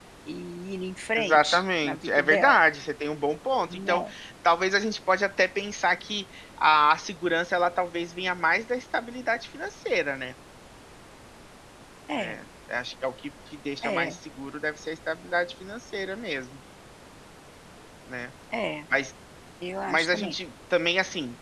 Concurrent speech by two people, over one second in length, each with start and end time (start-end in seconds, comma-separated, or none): 1.2-2.6